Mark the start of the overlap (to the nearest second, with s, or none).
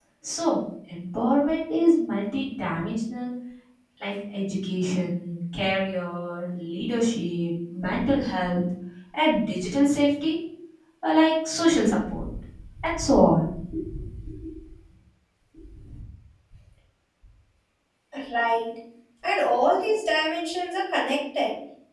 none